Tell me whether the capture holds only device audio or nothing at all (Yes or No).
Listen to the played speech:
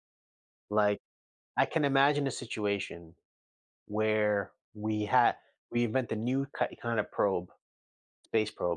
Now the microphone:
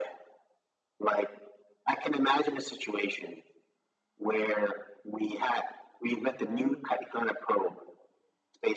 No